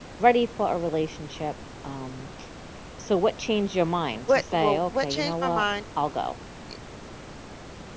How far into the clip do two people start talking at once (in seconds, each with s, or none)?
4.3 s